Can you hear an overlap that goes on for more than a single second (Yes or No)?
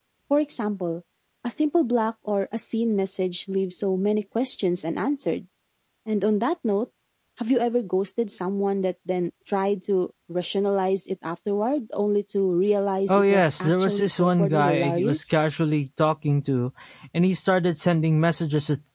Yes